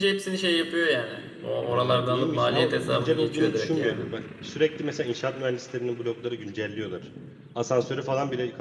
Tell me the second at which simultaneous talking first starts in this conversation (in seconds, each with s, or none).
1.7 s